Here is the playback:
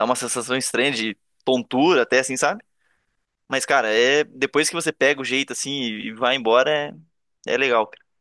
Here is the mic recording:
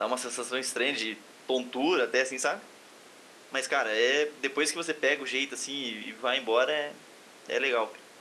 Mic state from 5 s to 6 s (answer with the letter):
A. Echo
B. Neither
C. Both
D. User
A